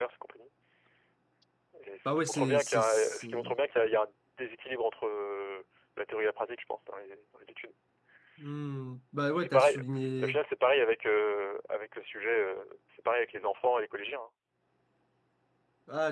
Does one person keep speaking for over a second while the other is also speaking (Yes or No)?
Yes